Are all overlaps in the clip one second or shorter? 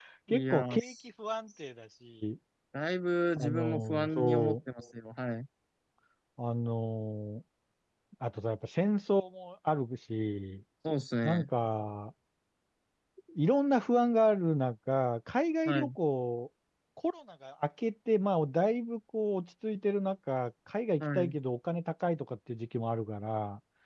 No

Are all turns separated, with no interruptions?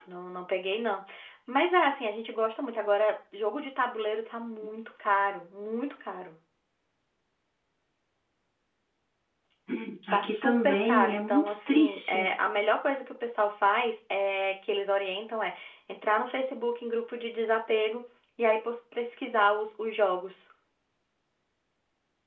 No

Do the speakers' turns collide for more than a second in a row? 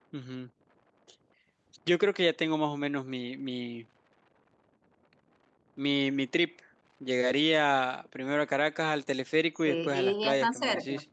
Yes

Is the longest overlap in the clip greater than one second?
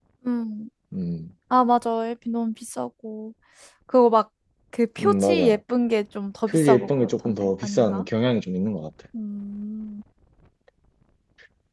Yes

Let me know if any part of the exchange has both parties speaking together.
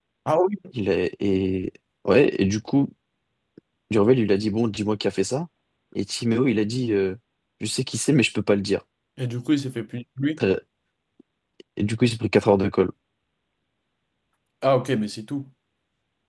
No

